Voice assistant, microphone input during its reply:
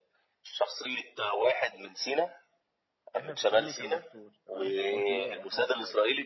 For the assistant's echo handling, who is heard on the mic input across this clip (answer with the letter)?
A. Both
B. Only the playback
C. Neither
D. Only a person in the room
A